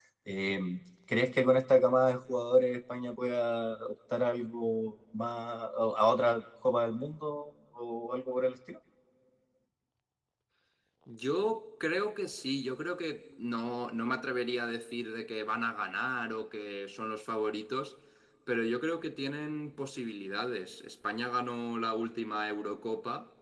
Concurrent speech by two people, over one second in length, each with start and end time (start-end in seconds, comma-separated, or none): none